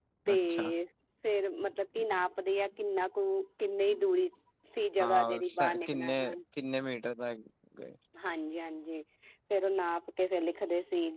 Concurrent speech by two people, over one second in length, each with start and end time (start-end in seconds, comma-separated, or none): 5.0-6.4